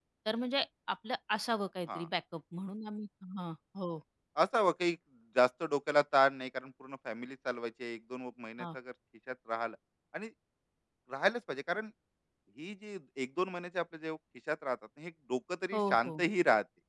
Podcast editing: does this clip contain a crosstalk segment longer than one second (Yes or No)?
No